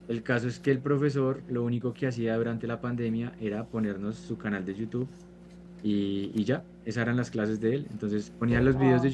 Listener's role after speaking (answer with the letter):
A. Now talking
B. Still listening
B